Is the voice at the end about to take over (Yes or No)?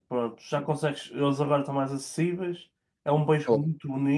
No